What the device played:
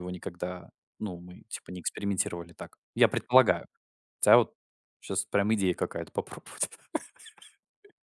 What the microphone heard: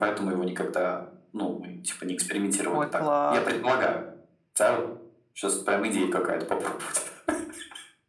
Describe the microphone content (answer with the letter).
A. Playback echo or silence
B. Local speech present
B